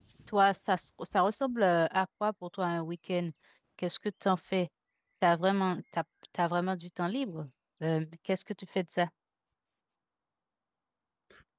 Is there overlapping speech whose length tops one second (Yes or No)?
No